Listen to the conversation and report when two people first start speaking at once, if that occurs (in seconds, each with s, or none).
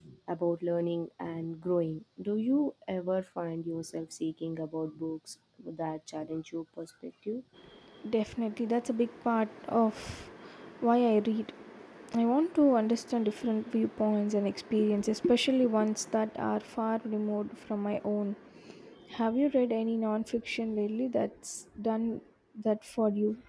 none